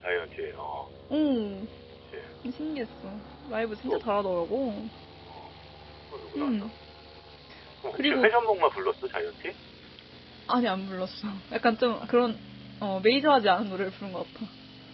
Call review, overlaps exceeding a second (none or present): none